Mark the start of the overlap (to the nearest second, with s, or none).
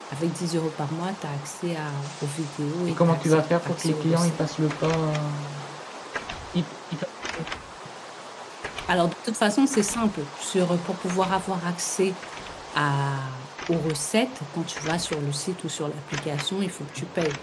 3 s